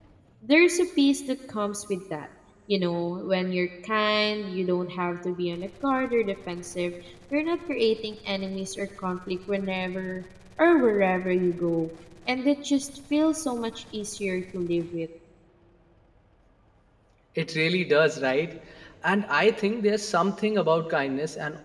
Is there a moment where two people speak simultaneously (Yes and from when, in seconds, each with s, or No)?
No